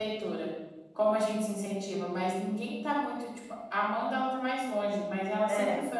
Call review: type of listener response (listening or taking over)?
listening